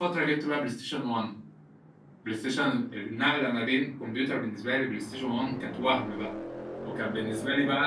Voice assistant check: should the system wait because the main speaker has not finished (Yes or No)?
Yes